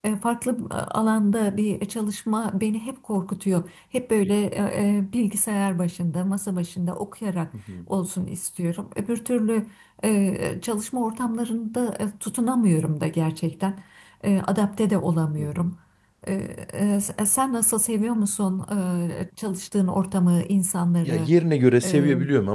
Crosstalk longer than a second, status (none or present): none